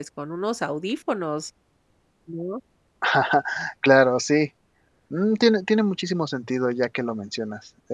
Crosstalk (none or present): none